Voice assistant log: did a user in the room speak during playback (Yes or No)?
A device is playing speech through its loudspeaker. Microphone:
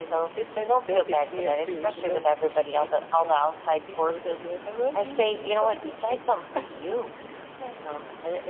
No